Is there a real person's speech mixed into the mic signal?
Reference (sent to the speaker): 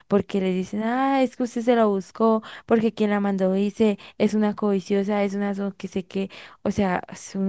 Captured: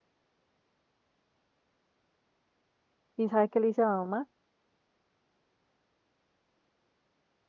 Yes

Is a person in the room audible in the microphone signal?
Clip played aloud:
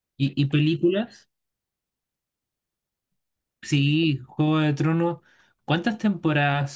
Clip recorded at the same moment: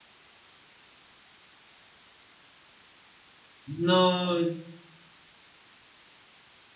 Yes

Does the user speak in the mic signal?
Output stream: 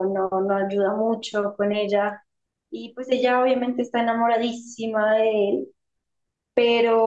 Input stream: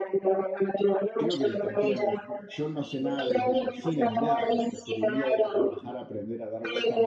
Yes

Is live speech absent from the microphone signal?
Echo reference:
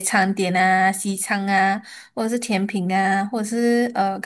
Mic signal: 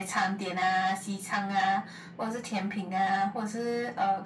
Yes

